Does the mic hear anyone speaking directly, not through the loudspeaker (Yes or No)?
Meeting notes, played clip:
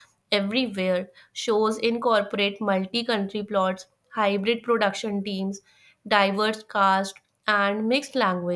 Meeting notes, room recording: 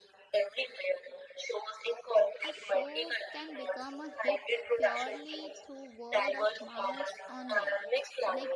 Yes